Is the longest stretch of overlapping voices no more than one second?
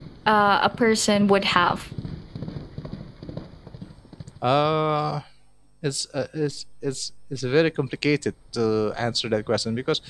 Yes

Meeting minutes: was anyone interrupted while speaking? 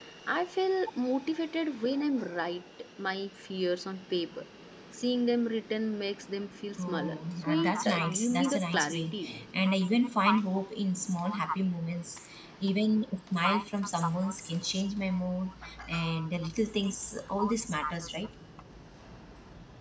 Yes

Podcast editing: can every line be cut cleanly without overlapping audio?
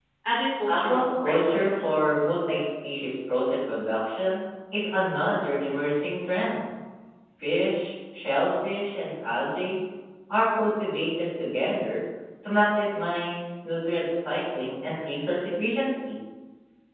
No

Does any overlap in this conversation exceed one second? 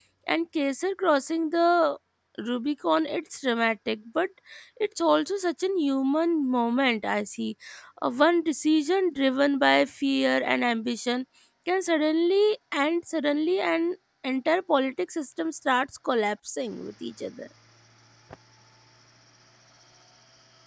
No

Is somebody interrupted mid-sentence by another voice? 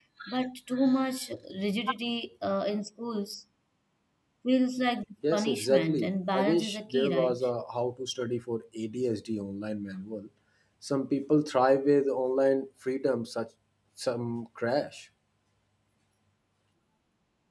Yes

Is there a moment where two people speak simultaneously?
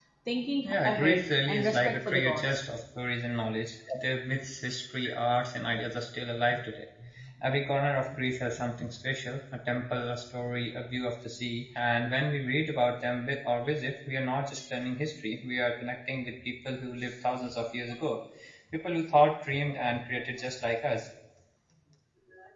Yes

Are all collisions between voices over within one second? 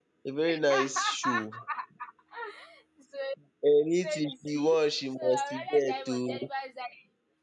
No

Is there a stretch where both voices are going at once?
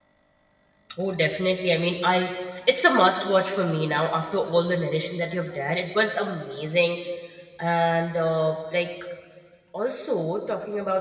No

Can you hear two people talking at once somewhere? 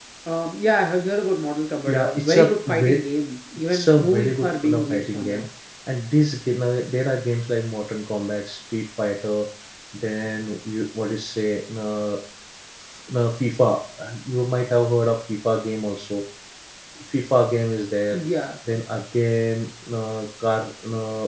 Yes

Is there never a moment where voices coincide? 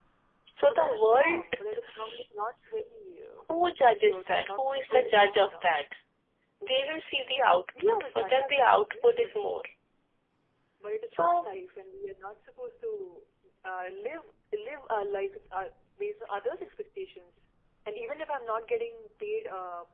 No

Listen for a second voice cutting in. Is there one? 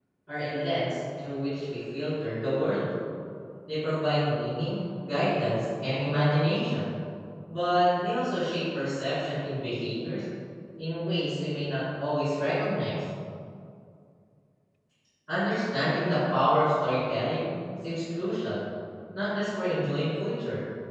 No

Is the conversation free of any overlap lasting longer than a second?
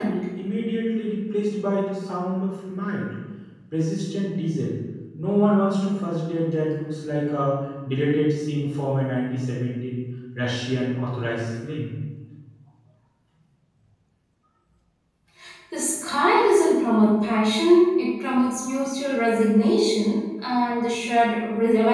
Yes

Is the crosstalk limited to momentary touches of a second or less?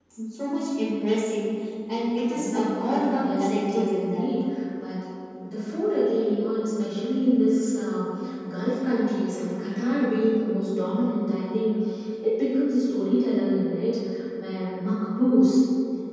No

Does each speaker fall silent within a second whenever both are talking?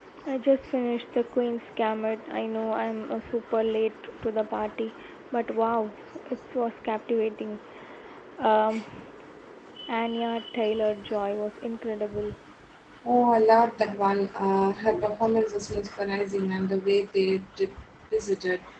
Yes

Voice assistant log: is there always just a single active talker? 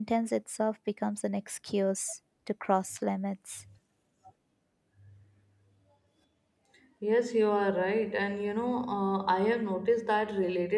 Yes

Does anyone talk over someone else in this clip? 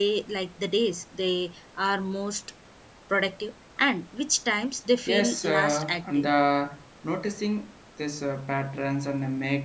Yes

